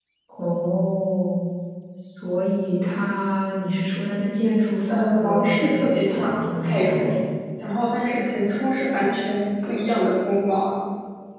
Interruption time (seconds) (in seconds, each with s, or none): 4.9 s